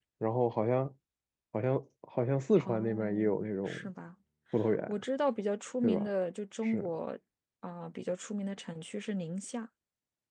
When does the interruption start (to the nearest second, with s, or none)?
3 s